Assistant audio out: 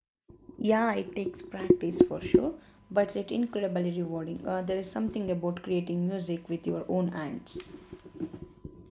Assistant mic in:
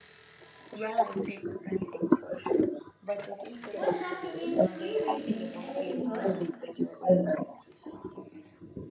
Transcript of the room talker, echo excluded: What have you been rereading? Anything good?

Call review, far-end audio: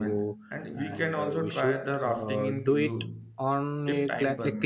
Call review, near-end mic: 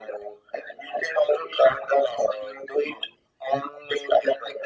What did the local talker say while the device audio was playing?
none

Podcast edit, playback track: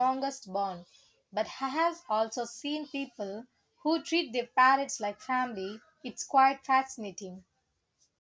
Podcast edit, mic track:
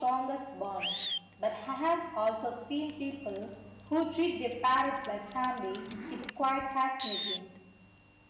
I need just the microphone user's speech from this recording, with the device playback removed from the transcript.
none

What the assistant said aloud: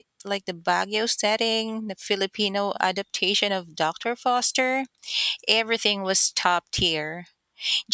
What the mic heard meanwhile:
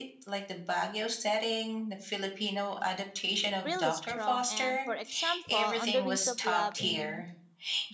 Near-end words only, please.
really strong and for example, On the Wings of Love in

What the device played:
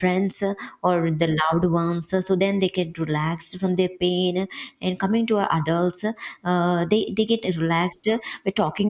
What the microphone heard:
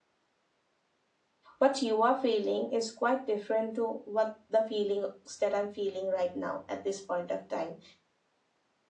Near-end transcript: what you are feeling is quite different to what the feelings that I'm feeling right now at this point of time.

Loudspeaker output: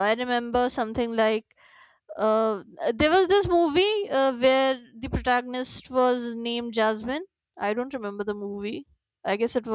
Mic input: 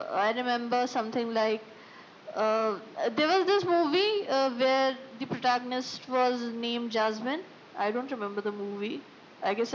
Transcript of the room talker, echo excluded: none

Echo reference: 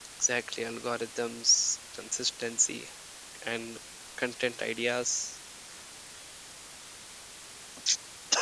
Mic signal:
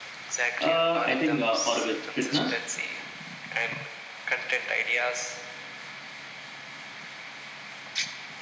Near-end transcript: Uh, I think uh, or with fitness.

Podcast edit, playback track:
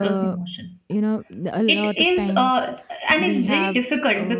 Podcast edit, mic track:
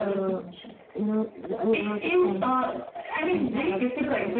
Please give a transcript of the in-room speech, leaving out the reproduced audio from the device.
none

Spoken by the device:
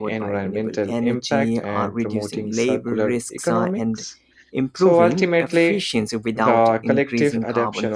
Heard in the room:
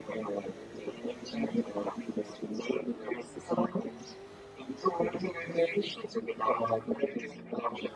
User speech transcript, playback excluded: none

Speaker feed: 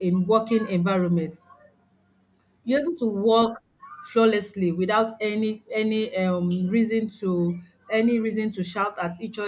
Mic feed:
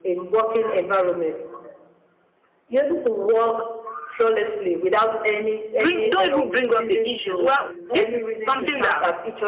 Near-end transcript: Bring, don't even bring up the issues. Well, this is something that

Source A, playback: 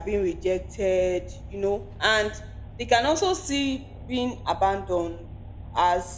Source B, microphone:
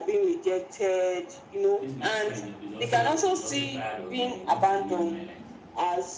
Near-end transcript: this my friend is also is also tired of me and he wants to live my life.

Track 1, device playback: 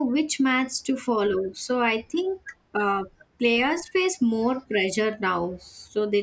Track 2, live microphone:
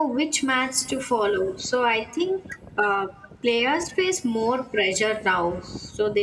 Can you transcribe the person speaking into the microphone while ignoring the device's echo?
none

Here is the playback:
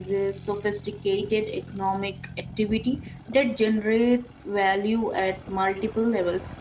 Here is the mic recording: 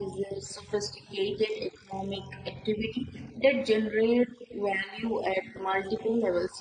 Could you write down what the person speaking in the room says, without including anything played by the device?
none

